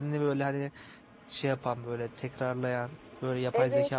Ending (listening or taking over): taking over